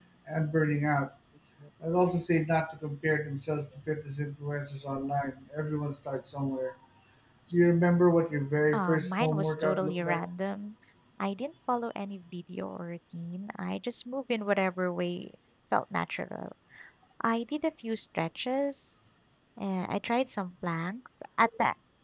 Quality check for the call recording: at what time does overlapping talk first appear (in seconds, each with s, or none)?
8.7 s